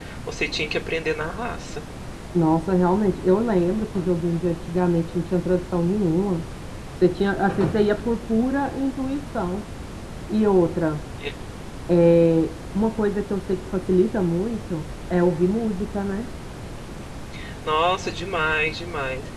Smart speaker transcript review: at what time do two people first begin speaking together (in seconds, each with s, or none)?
none